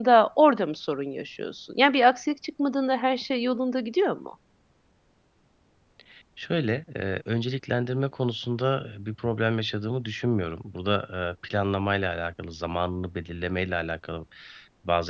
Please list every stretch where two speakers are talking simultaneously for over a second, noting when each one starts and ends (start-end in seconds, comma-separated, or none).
none